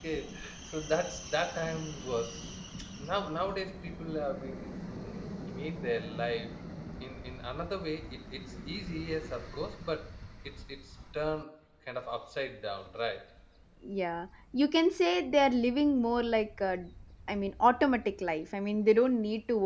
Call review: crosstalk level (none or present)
none